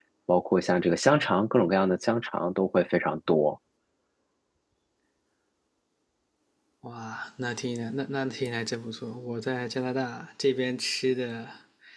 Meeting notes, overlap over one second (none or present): none